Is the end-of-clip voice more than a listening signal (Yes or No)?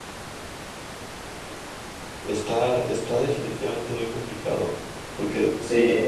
No